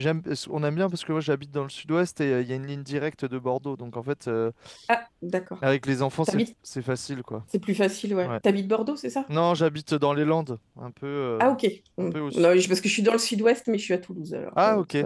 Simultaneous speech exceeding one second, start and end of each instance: none

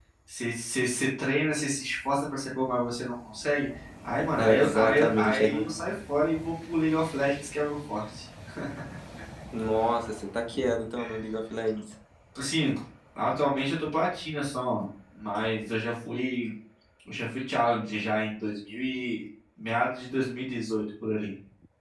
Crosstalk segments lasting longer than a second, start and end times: 4.4-5.6

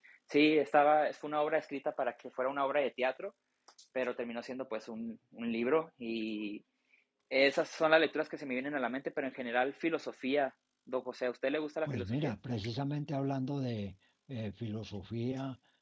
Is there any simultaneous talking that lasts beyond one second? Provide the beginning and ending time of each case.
none

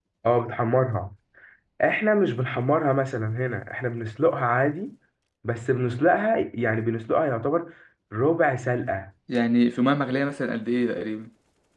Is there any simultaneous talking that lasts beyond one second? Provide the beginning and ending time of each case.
none

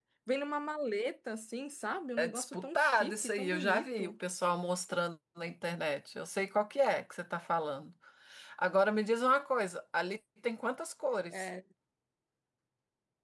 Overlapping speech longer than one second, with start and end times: 2.2-4.1

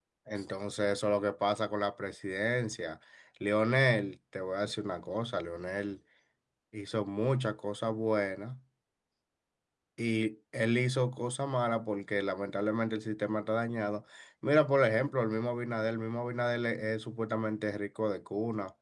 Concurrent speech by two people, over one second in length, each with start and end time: none

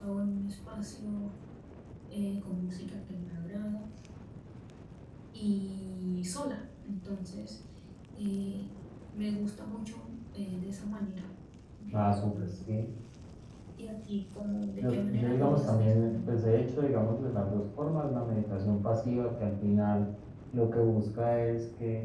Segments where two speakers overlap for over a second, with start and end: 14.8-16.4

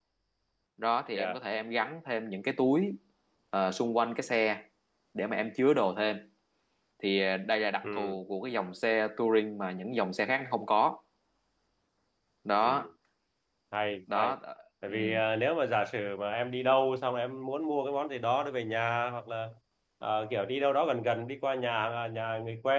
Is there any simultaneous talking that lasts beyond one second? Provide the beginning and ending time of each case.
none

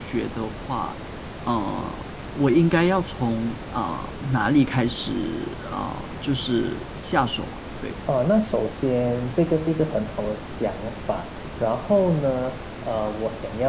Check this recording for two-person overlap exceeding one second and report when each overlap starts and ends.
none

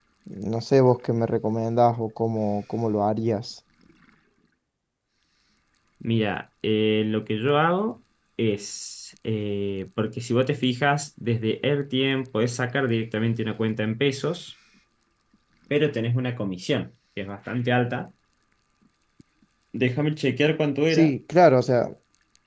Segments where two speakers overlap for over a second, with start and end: none

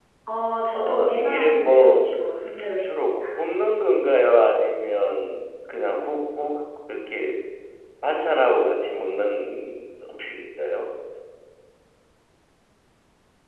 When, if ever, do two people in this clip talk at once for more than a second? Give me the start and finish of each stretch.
0.7-2.0

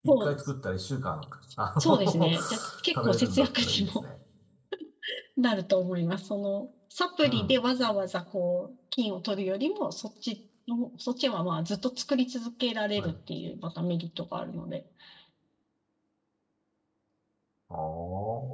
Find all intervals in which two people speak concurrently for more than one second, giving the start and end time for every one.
1.8-4.0

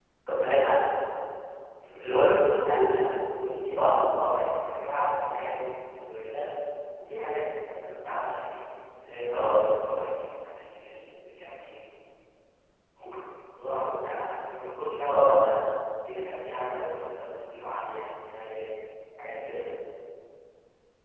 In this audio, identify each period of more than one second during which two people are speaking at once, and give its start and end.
2.6-4.0

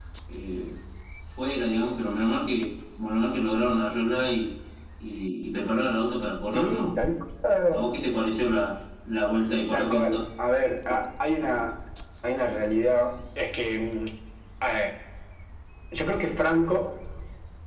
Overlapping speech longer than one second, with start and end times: none

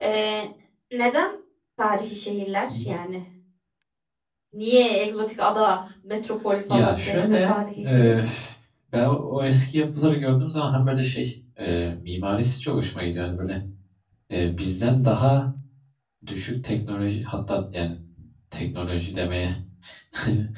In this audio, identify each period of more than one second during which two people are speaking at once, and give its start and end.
6.7-8.1

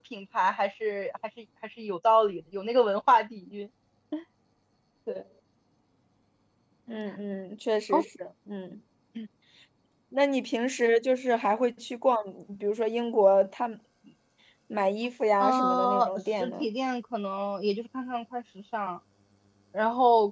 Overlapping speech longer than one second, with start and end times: 15.4-16.7

